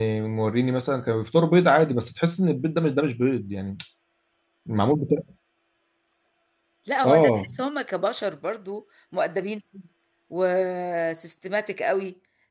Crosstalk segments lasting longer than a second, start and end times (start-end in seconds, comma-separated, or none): none